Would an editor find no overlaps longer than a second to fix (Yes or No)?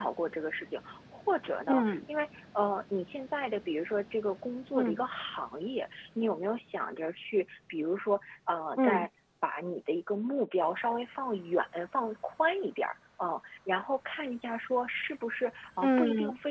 Yes